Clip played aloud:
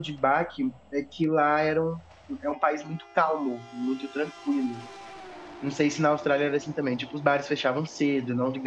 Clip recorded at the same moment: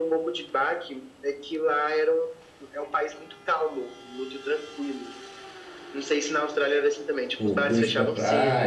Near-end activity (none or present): present